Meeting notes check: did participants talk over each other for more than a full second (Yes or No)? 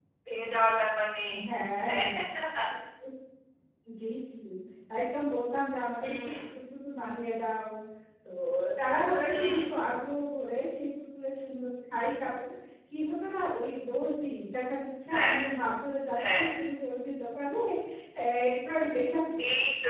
No